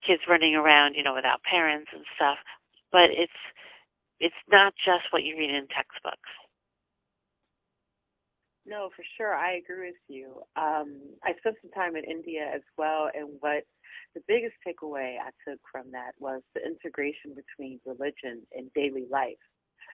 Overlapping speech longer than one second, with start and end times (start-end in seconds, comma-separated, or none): none